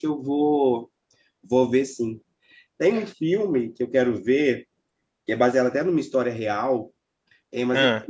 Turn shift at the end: No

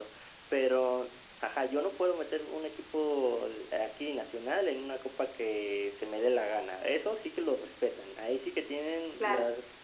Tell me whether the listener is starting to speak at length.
Yes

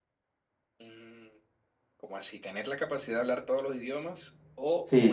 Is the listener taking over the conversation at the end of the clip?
Yes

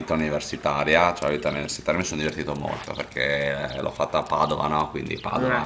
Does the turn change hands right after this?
No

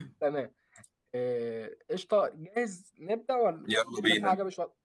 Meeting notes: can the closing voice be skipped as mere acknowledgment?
Yes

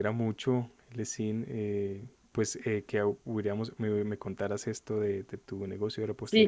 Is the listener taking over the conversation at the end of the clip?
Yes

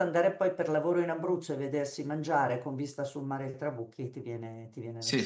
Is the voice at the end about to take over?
Yes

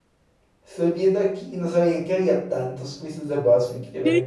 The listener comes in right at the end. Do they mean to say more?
Yes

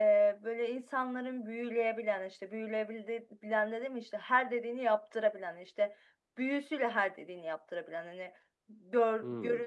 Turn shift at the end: No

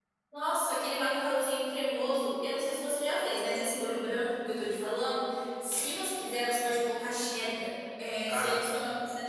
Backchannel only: Yes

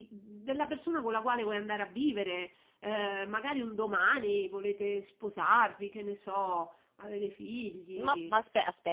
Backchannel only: No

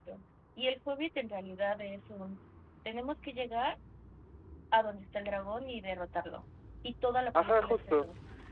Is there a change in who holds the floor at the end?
Yes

